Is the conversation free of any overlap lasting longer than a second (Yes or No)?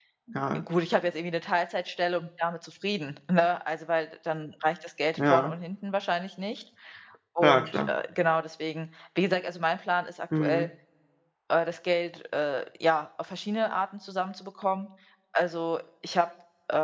Yes